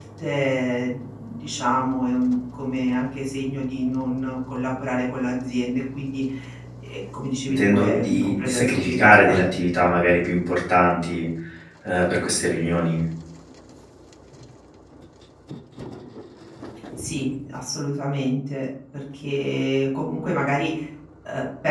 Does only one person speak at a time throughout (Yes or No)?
No